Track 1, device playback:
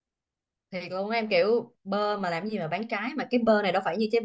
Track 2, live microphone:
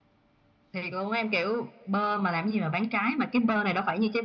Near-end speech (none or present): none